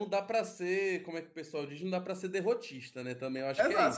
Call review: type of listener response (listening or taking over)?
taking over